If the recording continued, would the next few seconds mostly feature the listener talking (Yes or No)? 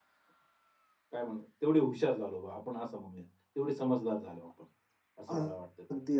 Yes